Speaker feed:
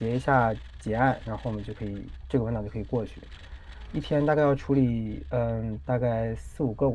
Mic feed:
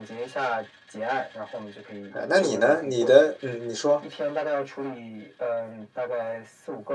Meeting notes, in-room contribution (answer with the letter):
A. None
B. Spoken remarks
B